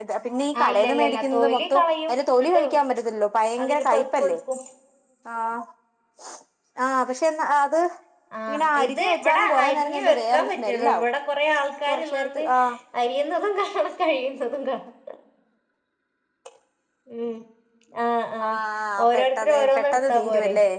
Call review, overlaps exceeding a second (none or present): present